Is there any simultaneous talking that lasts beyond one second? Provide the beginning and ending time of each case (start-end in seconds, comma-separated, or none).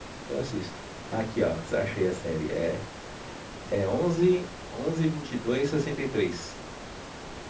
none